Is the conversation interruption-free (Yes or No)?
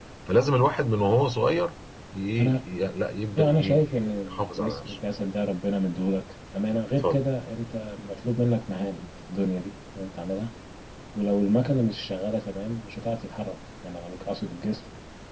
No